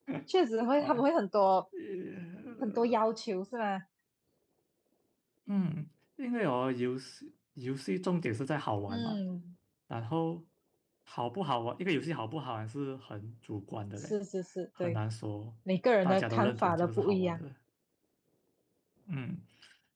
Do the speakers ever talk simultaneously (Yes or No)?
Yes